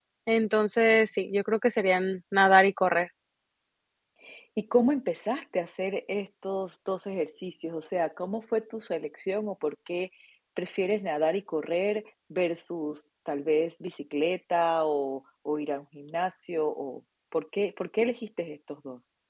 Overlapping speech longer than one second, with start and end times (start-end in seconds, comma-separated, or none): none